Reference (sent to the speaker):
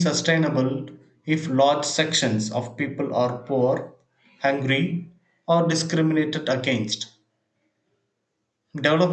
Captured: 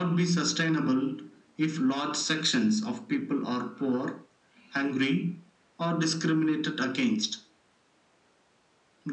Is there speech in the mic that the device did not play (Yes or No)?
No